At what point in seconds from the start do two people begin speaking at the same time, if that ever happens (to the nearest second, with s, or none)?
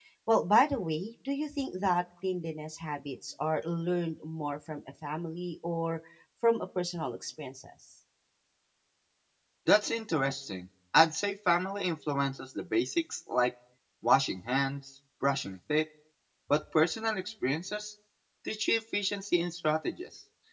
none